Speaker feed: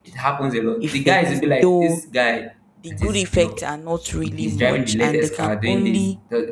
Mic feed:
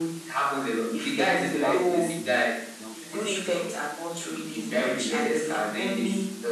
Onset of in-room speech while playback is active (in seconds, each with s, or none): 1.1 s